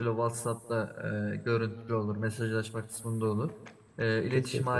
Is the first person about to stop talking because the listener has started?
No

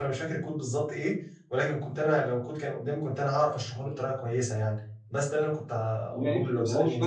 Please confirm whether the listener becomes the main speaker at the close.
Yes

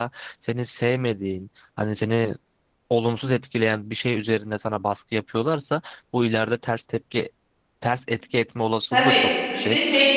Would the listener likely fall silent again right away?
No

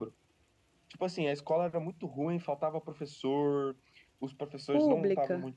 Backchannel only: Yes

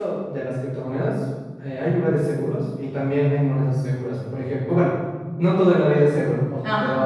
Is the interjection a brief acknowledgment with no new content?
Yes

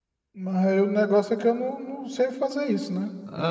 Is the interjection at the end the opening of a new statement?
Yes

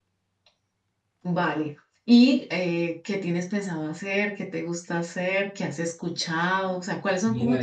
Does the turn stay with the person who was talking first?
Yes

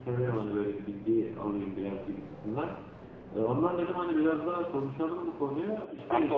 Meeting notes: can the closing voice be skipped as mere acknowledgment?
Yes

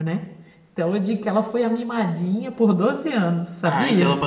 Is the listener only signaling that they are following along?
No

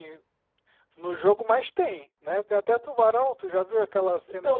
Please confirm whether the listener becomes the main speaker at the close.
Yes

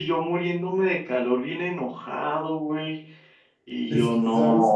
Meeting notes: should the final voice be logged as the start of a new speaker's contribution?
Yes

